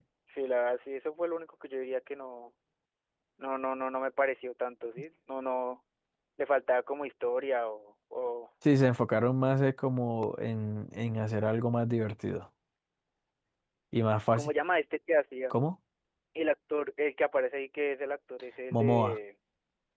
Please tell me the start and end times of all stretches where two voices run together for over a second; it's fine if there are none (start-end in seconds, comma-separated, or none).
none